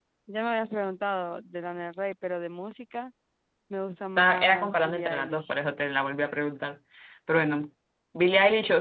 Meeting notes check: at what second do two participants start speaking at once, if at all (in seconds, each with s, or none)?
4.2 s